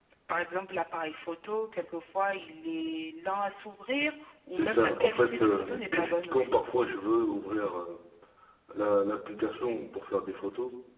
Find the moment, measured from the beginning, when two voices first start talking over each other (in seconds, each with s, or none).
4.5 s